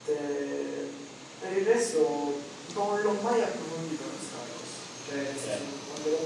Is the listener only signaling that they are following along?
Yes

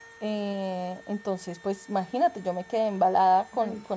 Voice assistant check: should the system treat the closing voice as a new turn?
No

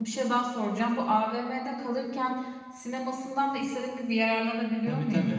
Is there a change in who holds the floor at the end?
Yes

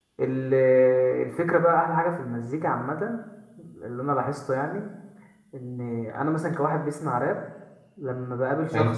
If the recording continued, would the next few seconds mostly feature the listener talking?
No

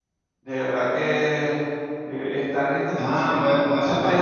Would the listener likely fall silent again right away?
No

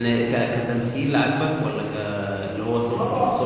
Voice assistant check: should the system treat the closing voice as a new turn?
Yes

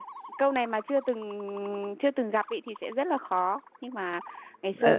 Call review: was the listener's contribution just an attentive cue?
Yes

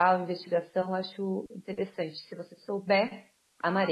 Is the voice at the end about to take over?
Yes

